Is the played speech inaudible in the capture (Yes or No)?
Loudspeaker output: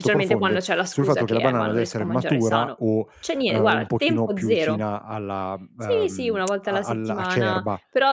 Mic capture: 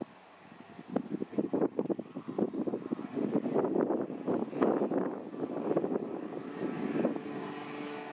Yes